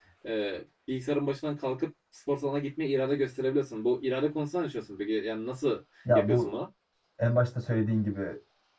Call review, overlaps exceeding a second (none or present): none